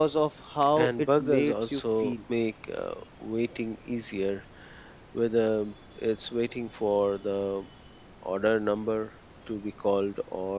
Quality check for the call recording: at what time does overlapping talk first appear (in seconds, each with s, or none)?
0.8 s